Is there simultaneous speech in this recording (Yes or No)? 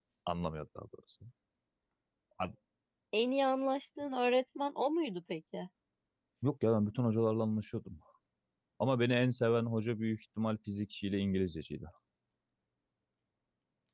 No